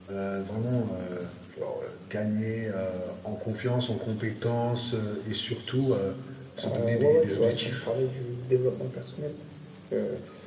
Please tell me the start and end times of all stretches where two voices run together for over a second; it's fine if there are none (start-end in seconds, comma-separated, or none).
6.6-7.8